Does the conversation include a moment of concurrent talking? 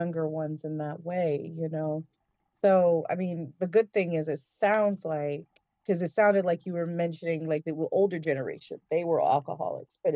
No

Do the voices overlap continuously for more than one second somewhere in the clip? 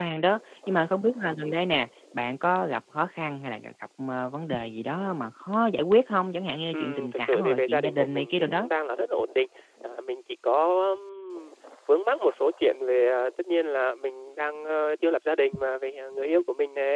Yes, from 6.7 s

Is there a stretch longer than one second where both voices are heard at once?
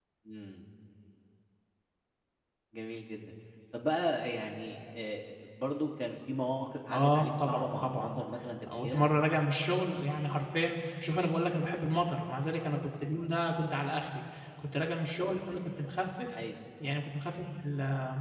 Yes, from 6.9 s

